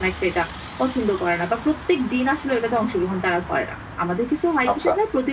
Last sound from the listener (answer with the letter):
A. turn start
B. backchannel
B